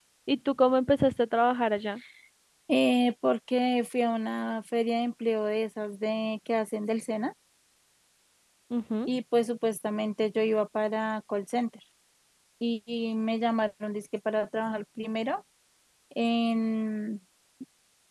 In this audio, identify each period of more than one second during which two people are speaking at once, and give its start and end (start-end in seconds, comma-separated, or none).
none